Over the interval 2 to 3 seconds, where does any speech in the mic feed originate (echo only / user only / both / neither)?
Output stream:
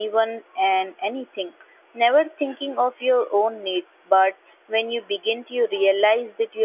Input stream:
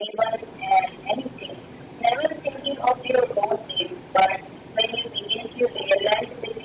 echo only